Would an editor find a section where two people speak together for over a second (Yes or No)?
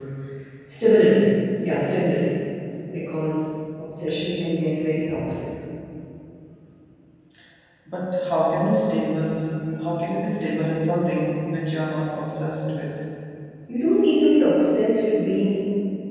No